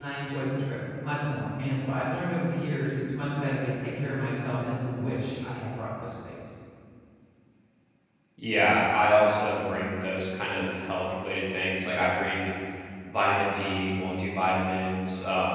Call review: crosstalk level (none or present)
none